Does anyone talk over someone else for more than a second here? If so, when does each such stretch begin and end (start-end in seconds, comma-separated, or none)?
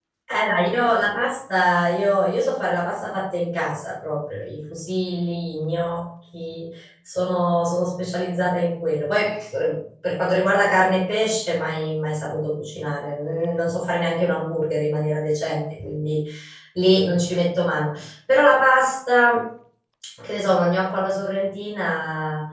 none